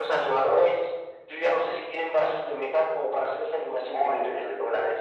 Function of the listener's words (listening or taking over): taking over